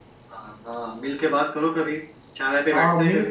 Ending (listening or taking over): taking over